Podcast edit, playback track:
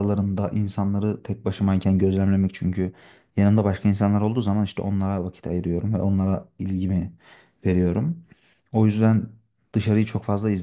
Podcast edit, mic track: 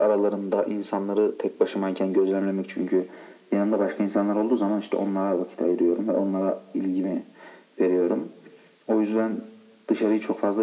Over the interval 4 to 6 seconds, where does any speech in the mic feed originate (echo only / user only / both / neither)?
echo only